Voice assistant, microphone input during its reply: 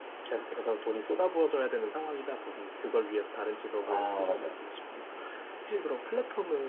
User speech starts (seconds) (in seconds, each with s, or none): 3.8 s